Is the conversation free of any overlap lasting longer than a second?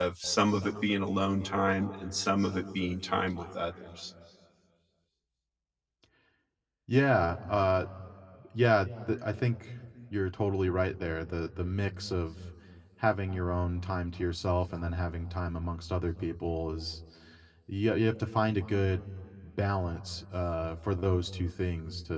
Yes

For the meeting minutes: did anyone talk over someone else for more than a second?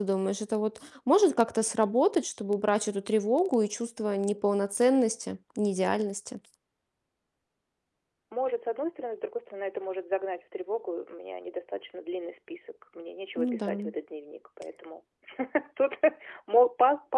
No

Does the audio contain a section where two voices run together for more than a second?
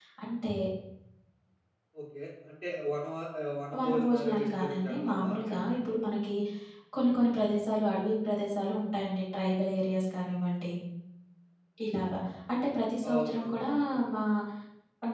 Yes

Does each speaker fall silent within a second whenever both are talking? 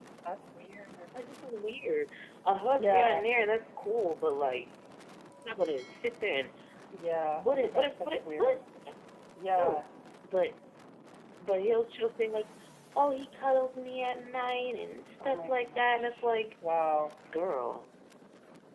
No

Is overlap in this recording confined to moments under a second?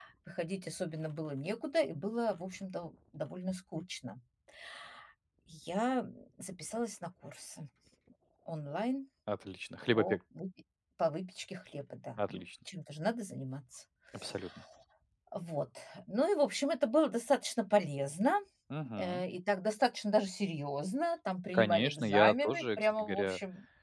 No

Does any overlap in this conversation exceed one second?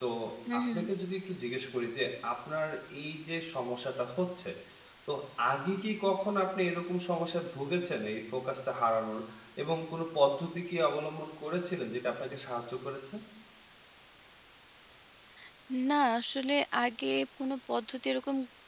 No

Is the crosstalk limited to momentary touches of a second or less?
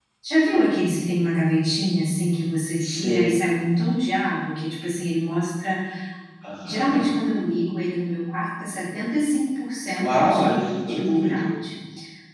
No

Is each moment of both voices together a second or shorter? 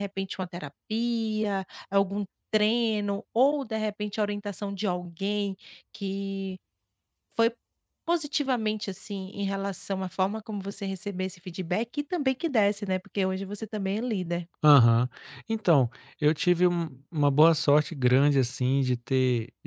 Yes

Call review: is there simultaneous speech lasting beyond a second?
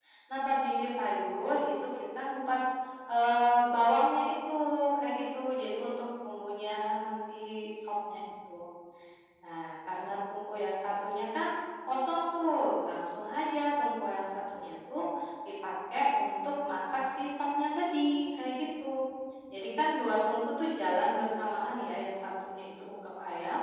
No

